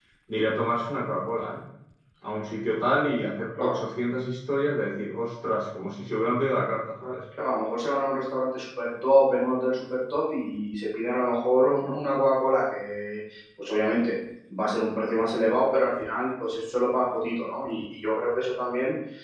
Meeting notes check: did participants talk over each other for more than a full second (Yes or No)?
No